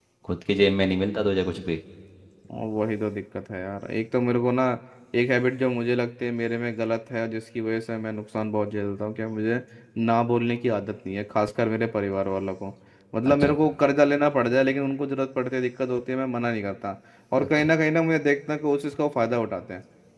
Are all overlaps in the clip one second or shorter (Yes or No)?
Yes